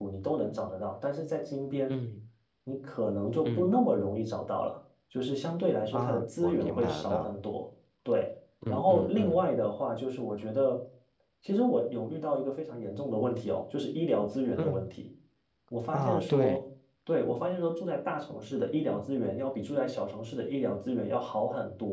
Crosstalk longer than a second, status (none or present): present